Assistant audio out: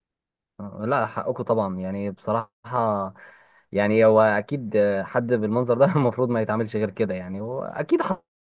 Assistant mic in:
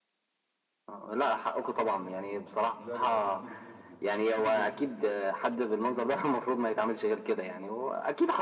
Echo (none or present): present